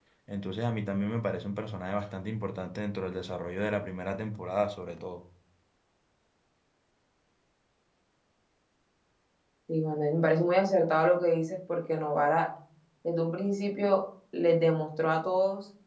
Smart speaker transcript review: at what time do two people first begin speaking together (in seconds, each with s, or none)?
none